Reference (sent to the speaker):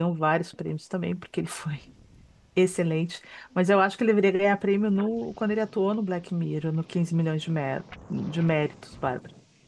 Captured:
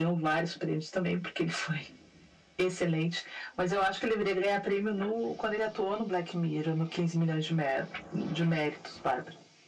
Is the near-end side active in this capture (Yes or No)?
No